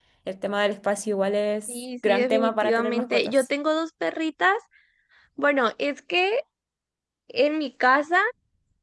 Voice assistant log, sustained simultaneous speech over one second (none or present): present